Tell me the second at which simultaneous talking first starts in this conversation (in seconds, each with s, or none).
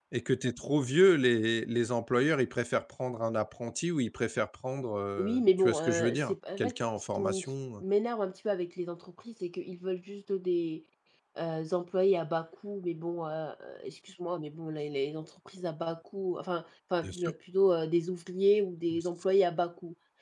5.2 s